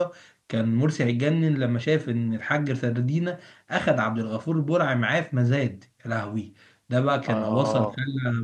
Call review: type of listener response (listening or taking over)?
listening